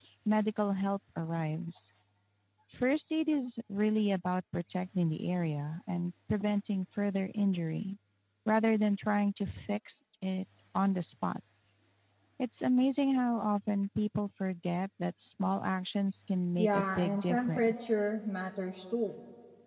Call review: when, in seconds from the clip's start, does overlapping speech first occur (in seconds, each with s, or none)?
16.6 s